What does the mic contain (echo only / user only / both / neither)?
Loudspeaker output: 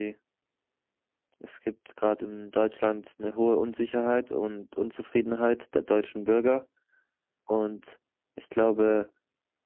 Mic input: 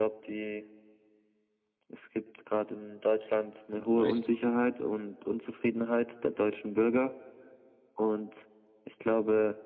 both